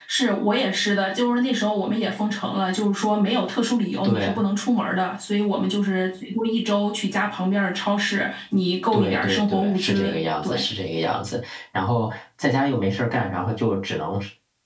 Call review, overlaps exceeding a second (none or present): present